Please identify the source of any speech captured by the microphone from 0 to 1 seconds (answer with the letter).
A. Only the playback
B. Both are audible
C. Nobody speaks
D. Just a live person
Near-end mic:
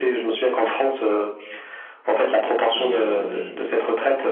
A